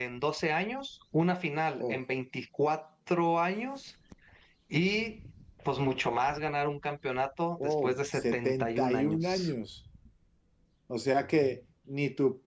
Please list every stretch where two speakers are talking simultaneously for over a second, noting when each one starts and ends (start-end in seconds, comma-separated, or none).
7.6-9.5